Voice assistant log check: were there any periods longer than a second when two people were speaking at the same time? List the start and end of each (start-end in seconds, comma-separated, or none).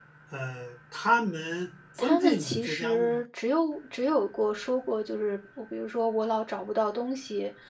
2.0-3.2